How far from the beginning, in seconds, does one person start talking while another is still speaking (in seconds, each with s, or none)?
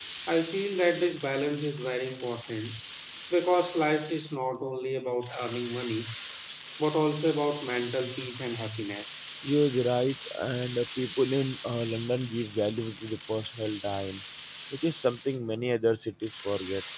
none